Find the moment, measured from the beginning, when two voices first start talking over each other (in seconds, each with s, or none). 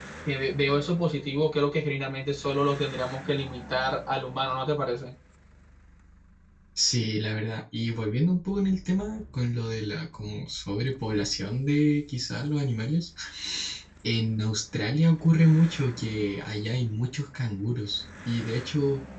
none